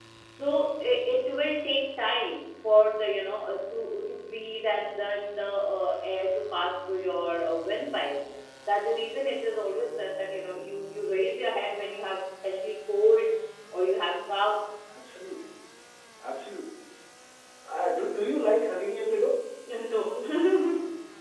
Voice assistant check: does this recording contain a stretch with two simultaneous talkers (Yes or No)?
No